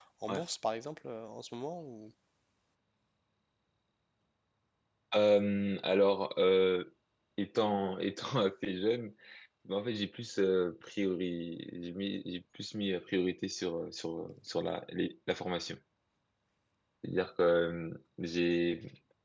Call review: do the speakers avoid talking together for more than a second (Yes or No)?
Yes